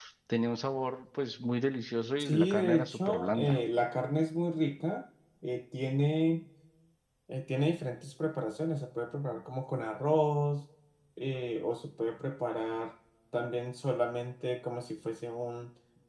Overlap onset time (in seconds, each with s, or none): 2.2 s